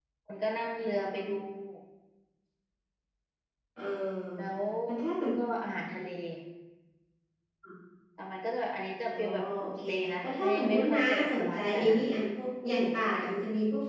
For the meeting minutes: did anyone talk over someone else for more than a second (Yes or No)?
Yes